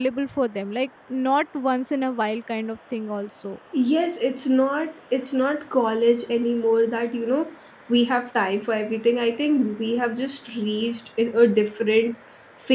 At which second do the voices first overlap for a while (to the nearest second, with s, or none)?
none